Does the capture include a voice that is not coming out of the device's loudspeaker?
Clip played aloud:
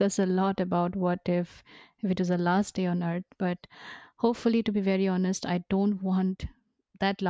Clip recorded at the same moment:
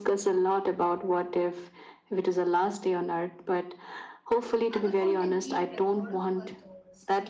Yes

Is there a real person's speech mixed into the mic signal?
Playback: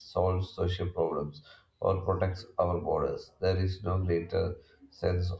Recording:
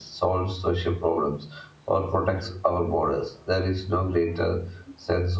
No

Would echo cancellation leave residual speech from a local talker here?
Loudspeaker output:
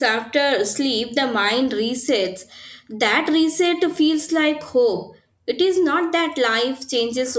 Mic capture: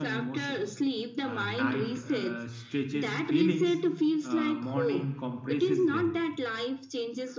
Yes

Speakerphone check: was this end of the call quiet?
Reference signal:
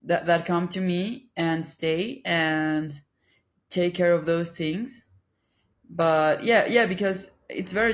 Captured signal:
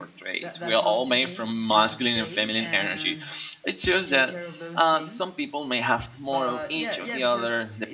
No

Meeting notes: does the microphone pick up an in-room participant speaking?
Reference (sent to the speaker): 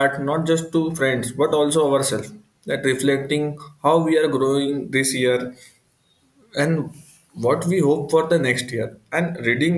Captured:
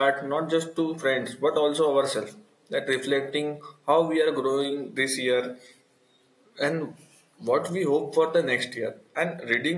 No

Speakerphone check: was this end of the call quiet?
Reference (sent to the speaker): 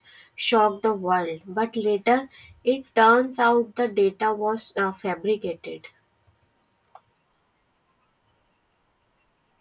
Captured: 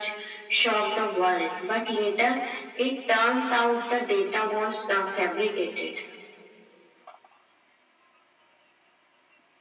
Yes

